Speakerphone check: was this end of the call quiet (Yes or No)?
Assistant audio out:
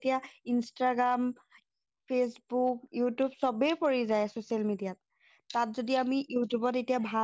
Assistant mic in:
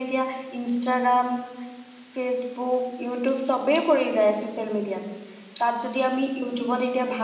Yes